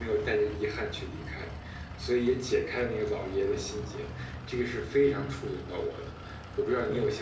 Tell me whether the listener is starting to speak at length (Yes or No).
Yes